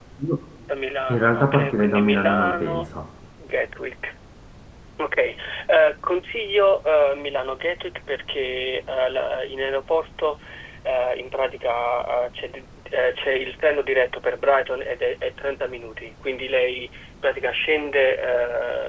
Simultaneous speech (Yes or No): Yes